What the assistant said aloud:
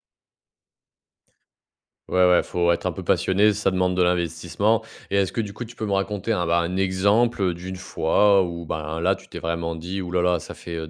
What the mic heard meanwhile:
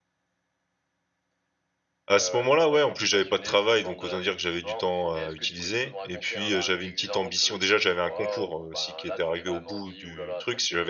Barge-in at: 2.1 s

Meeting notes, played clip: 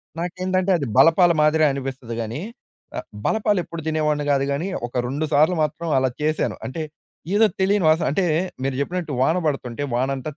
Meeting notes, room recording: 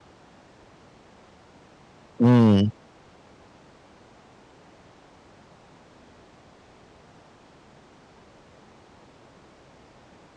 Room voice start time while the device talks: 2.2 s

